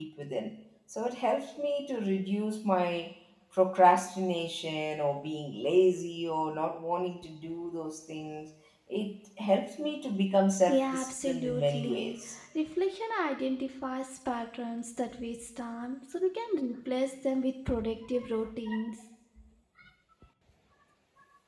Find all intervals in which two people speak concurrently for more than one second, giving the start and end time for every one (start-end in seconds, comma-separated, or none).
10.7-12.2